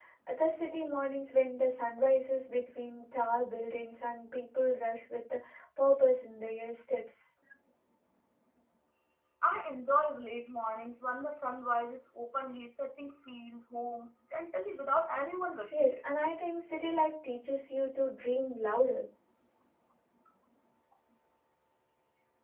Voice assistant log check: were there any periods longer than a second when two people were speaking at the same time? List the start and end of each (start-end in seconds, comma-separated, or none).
none